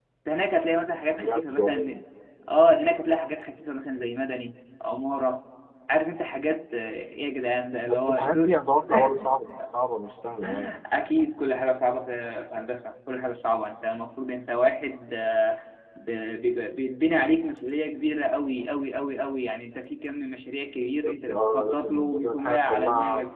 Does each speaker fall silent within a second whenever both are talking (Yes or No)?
No